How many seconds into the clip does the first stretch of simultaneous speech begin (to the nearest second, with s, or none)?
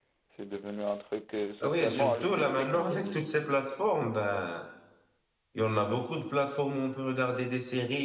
2 s